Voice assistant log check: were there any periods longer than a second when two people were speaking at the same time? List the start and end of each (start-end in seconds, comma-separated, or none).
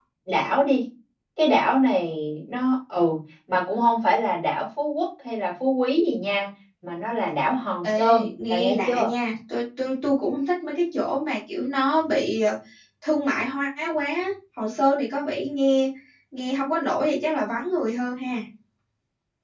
7.8-9.1